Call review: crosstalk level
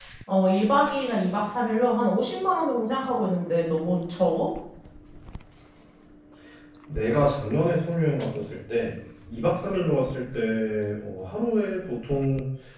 none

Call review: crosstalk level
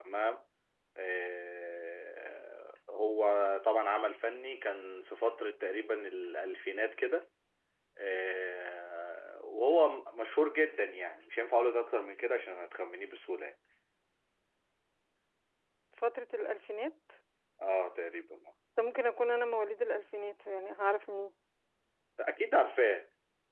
none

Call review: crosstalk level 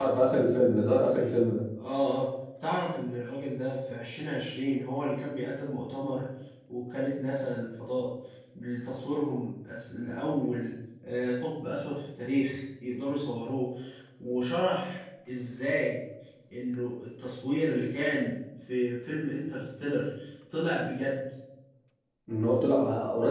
none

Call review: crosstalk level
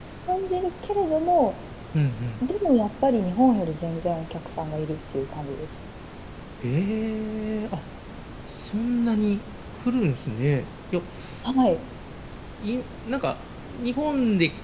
none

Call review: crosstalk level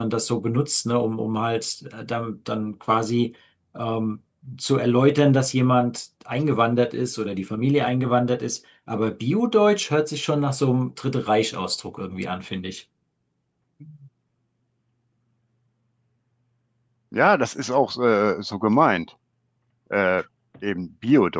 none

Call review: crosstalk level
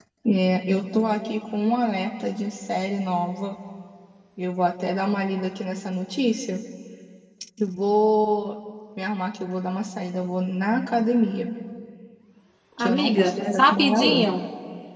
present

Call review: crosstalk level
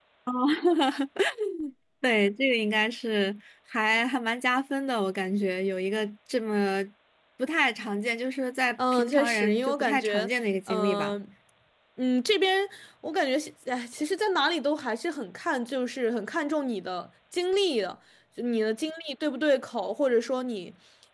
present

